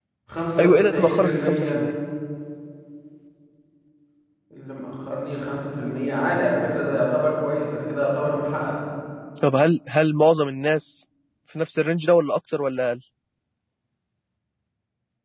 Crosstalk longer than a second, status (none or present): present